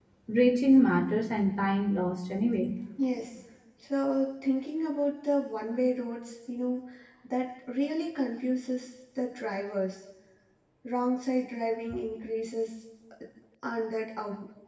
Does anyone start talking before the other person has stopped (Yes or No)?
No